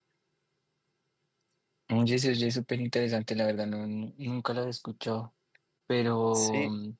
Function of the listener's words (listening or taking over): listening